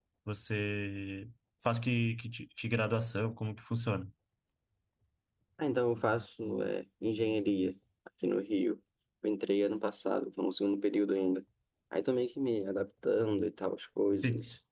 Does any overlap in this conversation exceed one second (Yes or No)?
No